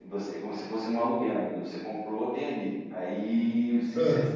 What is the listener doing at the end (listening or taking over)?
listening